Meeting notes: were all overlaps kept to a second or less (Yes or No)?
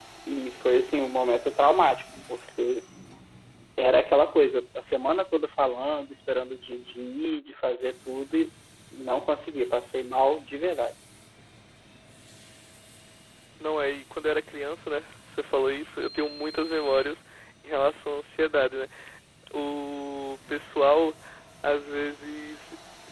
Yes